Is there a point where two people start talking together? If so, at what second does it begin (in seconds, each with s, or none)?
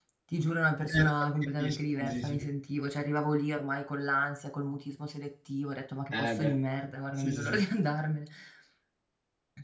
0.9 s